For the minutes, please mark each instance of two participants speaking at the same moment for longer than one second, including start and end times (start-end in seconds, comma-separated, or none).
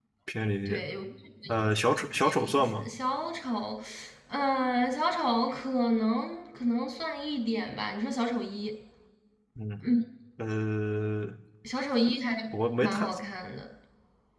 1.6-2.9